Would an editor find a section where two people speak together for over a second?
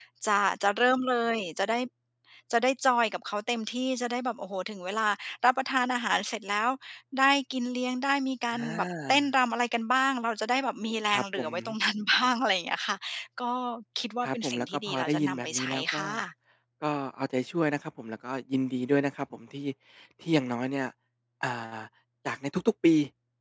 Yes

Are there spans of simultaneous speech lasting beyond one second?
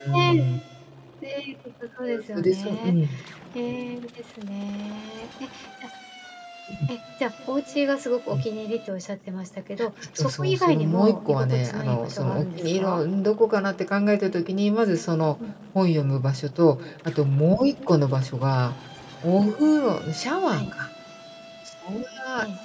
Yes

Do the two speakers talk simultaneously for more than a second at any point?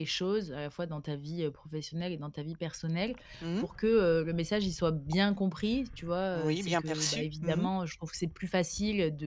Yes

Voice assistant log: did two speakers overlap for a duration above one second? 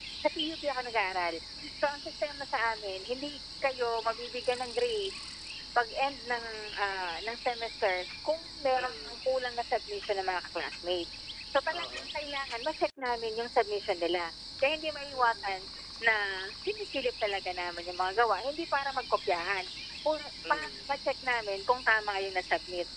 No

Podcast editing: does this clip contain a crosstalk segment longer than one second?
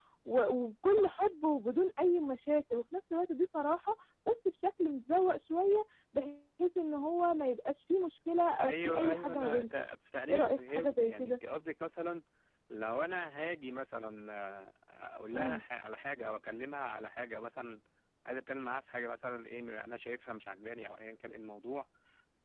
Yes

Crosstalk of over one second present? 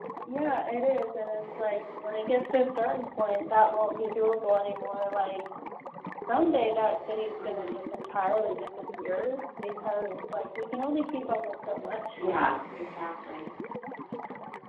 No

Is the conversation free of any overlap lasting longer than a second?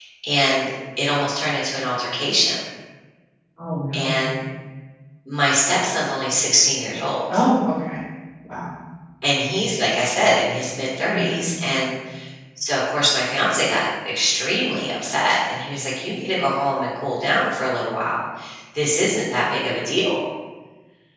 Yes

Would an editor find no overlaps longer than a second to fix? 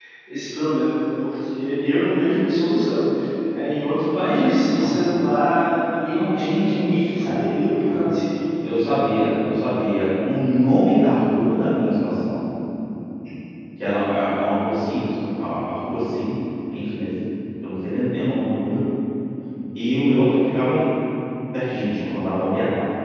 No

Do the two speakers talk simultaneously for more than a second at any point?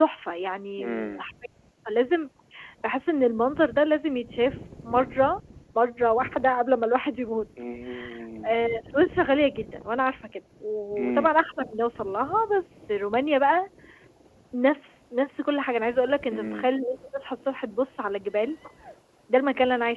No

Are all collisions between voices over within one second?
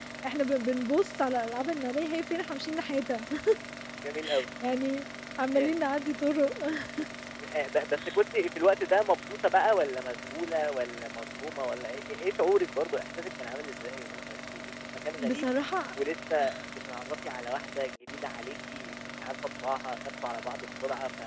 Yes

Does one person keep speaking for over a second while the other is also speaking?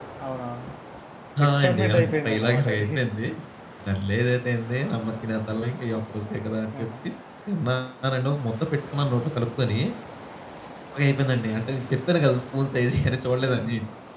Yes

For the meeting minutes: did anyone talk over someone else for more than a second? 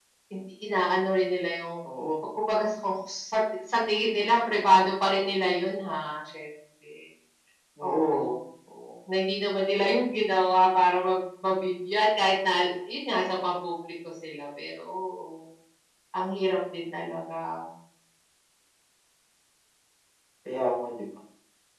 No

